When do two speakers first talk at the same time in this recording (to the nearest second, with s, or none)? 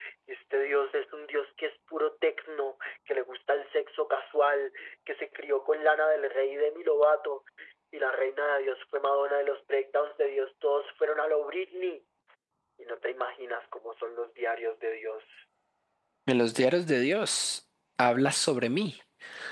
none